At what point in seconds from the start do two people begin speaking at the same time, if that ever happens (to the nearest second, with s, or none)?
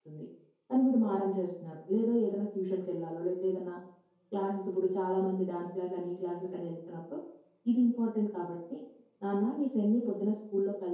none